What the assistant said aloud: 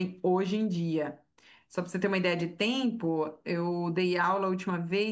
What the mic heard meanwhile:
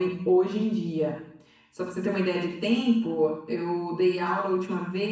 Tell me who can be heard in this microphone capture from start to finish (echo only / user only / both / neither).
echo only